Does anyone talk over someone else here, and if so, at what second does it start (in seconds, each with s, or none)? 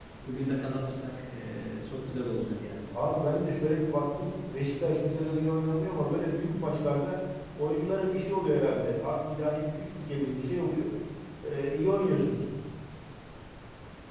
none